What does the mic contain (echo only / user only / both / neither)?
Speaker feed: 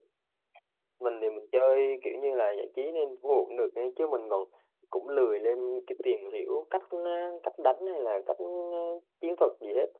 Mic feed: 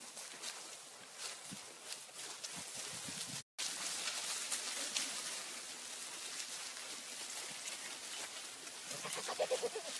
neither